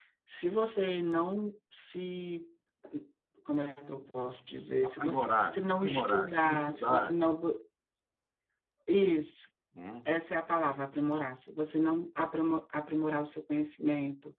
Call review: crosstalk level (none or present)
present